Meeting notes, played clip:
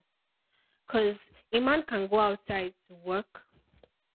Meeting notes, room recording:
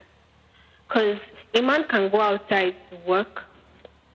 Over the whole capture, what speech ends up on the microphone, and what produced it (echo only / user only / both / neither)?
echo only